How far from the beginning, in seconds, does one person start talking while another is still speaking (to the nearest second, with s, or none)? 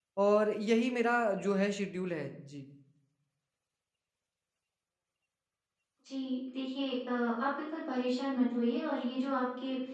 none